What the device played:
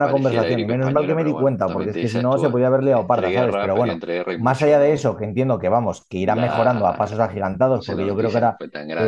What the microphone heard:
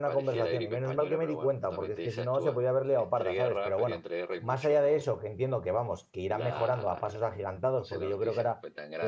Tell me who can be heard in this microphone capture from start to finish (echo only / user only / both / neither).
echo only